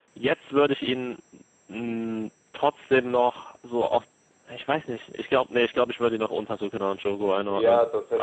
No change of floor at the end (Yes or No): No